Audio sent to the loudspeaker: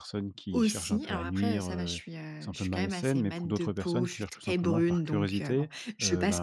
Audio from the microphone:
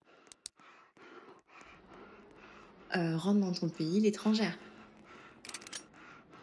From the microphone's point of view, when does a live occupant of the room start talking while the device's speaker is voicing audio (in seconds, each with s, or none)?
3.0 s